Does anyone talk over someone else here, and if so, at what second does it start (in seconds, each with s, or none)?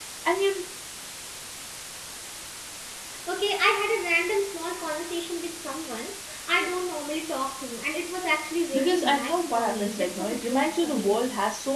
8.7 s